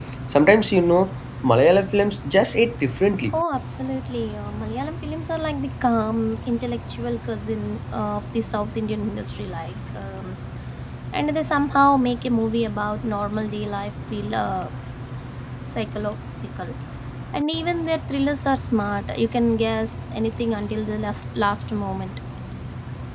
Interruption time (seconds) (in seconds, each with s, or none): none